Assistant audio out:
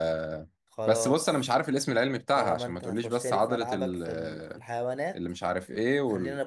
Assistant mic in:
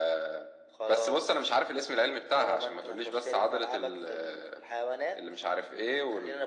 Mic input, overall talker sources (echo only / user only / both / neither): echo only